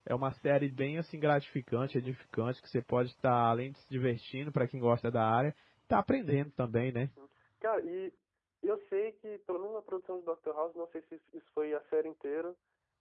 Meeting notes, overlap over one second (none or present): none